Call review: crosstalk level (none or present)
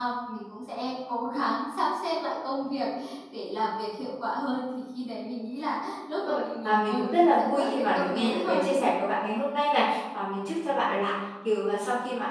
present